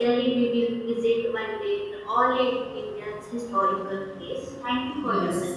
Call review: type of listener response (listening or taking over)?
taking over